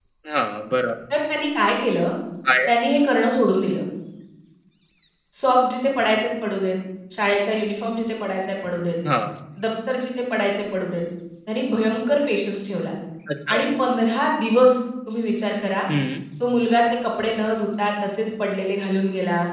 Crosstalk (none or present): none